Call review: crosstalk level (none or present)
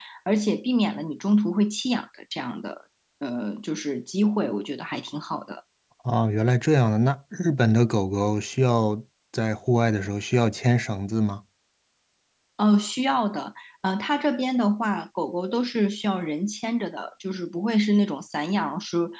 none